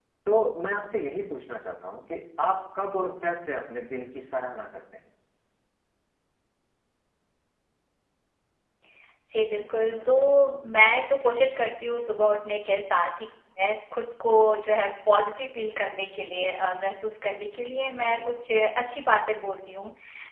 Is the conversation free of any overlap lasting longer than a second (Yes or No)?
Yes